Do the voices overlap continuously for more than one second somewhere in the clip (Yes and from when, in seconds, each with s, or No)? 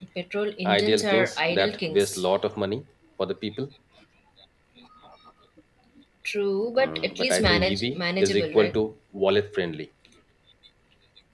Yes, from 0.6 s